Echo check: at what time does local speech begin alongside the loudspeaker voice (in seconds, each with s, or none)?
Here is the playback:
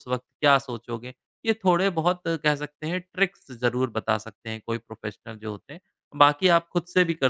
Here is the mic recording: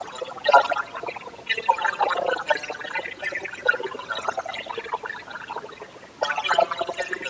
none